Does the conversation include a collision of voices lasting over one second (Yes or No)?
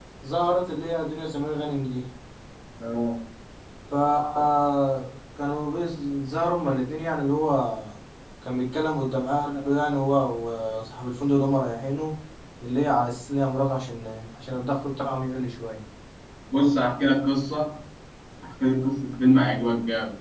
No